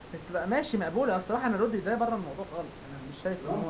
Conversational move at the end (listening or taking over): taking over